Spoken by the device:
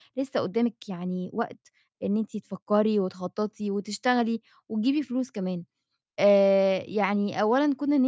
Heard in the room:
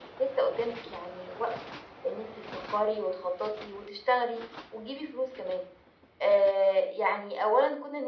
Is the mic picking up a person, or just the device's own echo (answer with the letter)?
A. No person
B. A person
A